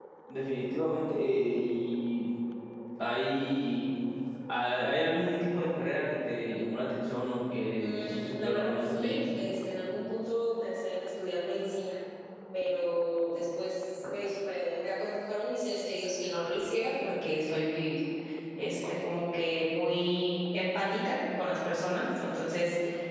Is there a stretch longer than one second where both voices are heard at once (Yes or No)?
Yes